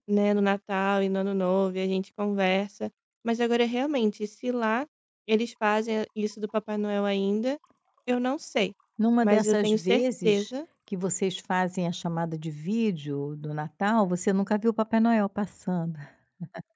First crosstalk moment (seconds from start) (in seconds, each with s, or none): 9.2 s